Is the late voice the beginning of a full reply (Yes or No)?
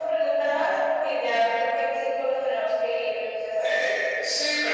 Yes